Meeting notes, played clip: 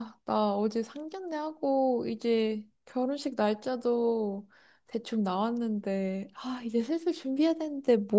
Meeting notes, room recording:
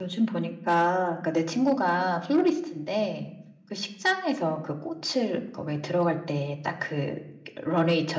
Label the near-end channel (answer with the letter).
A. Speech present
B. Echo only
A